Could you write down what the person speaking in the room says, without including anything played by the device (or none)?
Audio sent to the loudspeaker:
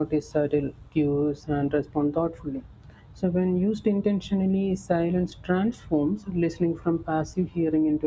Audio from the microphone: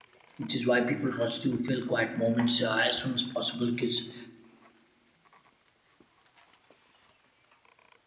which is why people rush to fill quiet moments uh, as soon as possible because